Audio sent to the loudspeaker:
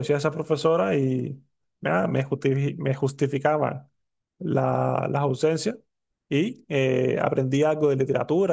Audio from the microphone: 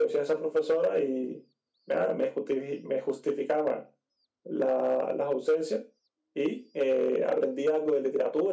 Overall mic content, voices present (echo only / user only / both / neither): echo only